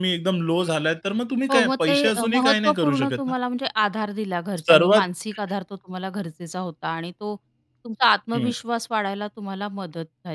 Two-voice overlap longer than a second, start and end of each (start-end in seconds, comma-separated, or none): 1.5-3.2